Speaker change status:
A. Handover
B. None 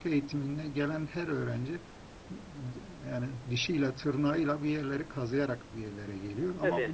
B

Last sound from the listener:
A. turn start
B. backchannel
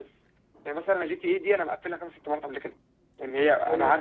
B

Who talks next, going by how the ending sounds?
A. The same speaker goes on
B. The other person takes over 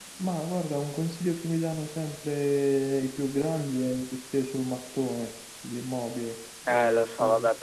B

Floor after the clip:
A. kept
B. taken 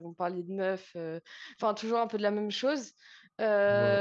A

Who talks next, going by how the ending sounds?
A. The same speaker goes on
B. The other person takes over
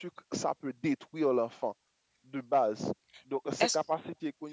A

